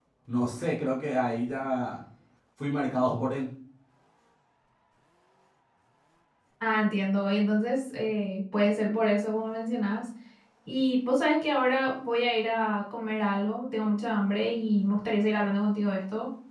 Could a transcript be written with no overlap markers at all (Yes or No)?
Yes